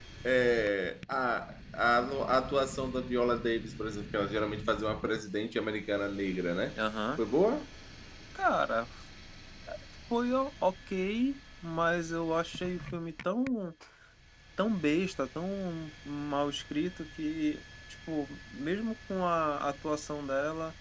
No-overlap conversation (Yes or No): Yes